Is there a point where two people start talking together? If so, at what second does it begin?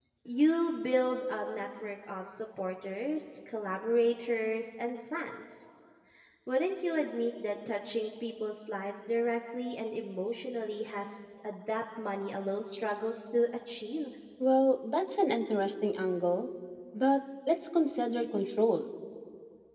none

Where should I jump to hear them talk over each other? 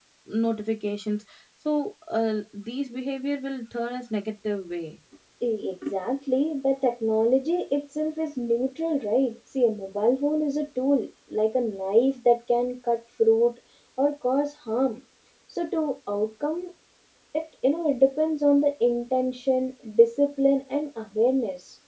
none

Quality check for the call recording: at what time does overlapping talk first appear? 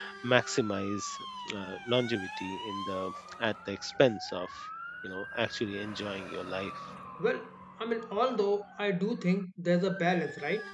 none

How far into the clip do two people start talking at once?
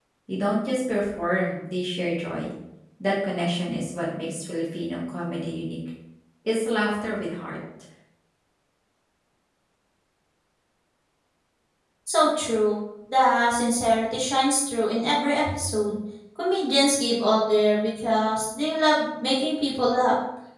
none

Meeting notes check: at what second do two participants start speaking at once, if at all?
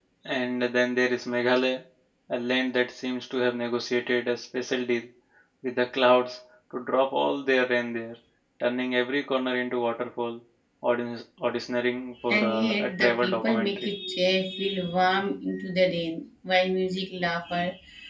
12.2 s

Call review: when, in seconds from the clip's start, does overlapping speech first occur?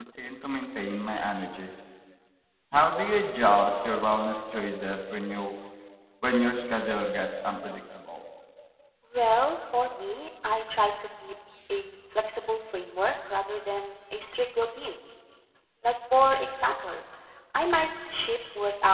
none

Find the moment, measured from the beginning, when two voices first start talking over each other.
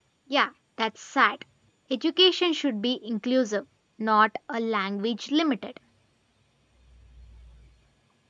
none

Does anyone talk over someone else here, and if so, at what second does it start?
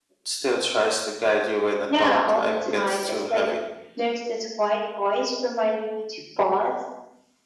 1.9 s

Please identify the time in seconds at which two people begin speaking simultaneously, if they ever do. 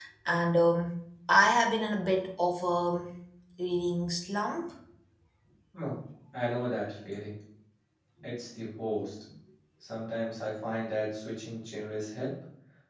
none

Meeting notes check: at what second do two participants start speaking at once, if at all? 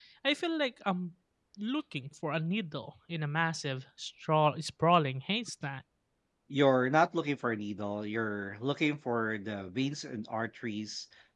none

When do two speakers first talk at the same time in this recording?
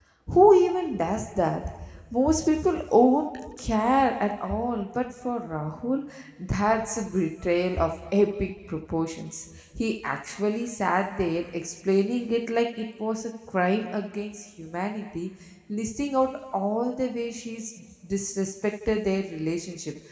none

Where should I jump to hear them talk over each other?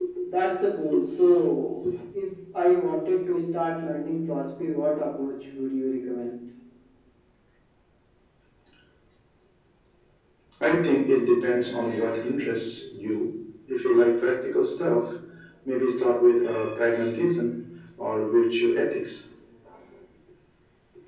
none

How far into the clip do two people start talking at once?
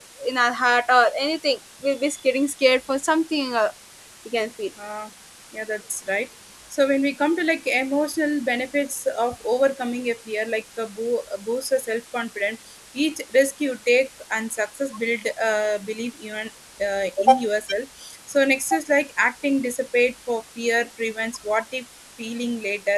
none

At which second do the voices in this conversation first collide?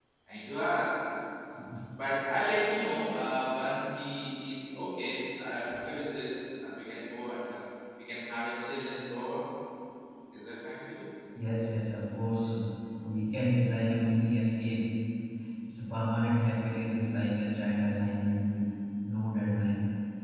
none

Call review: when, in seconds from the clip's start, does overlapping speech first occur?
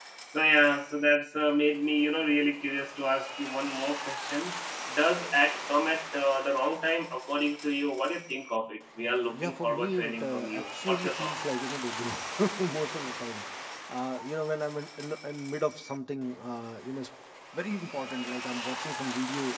9.3 s

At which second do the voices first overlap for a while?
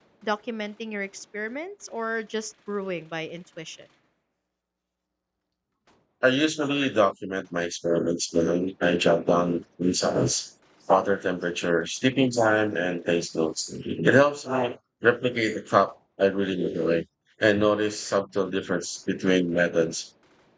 none

